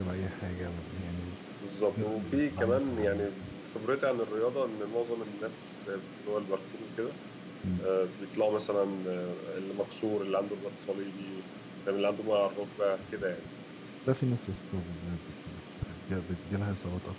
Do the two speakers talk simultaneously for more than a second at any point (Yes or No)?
Yes